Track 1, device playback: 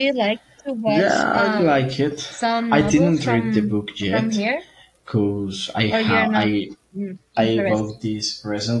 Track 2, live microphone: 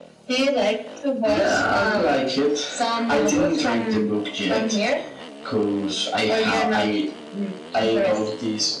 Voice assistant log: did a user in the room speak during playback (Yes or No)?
No